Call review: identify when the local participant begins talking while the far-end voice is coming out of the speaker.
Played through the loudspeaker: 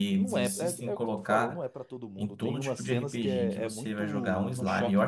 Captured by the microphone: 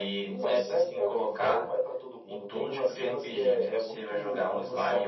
none

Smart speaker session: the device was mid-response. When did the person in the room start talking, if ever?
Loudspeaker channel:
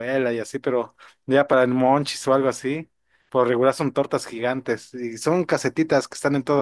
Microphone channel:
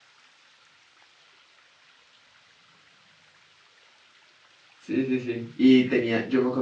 5 s

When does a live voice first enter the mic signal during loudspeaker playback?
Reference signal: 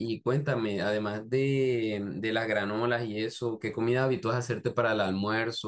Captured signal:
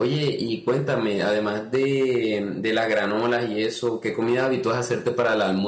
none

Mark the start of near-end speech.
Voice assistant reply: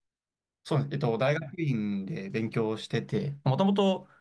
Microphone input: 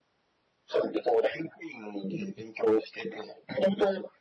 none

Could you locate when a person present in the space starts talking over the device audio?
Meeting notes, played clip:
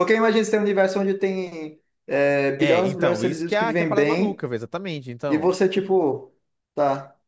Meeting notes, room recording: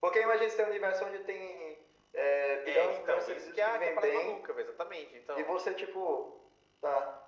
none

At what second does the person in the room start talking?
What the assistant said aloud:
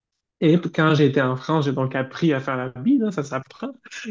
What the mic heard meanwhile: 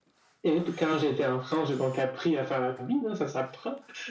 none

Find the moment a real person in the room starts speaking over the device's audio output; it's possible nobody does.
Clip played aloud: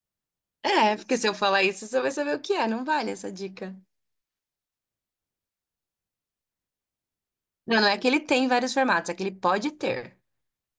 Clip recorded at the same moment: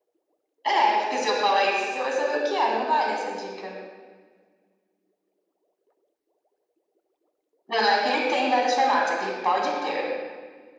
none

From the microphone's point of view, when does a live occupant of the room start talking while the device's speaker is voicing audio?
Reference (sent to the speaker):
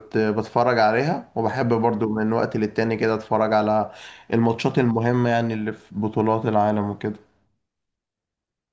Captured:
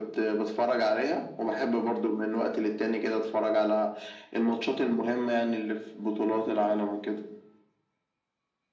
none

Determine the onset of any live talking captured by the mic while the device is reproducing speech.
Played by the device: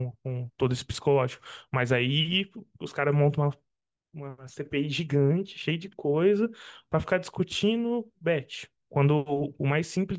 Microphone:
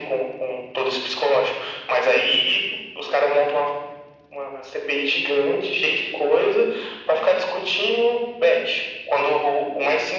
none

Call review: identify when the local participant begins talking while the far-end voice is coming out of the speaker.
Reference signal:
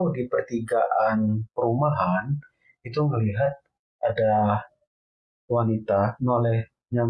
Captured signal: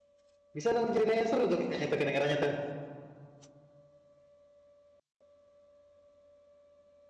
1 s

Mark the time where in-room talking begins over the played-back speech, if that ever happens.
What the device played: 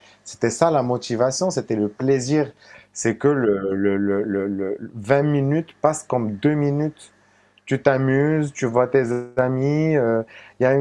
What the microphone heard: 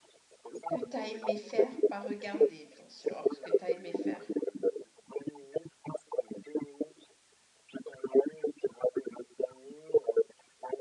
1 s

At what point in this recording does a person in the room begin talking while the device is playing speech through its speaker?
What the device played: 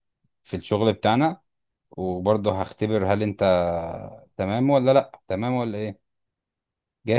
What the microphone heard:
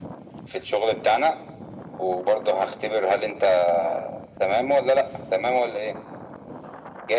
none

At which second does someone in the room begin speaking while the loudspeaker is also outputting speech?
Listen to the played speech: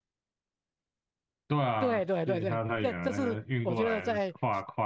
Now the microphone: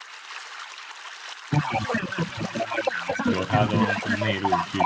3 s

